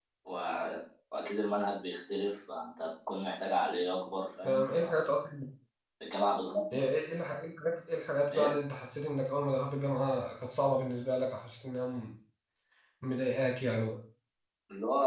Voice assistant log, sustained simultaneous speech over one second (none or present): none